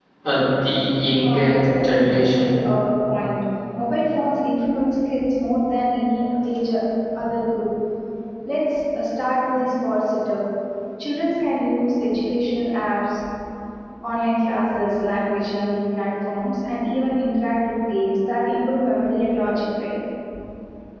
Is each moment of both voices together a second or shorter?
No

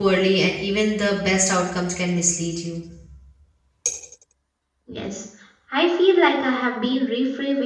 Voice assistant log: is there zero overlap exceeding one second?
Yes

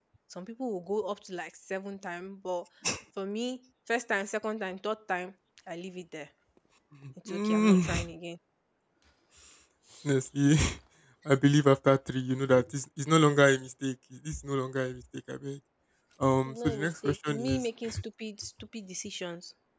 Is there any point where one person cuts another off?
Yes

